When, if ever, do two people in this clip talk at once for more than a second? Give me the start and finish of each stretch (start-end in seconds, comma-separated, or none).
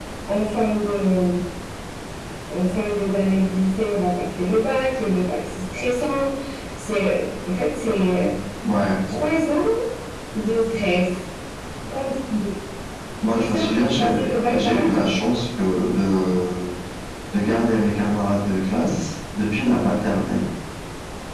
13.3-15.2